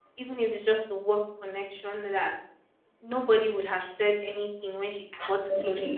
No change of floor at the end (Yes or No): Yes